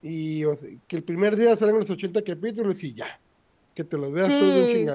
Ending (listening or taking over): taking over